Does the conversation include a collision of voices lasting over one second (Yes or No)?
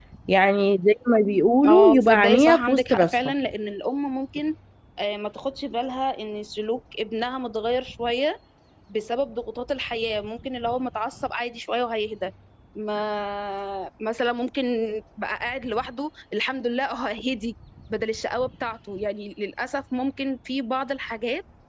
Yes